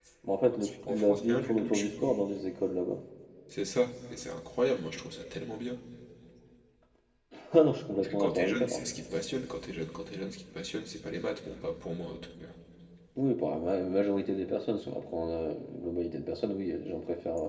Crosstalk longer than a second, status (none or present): present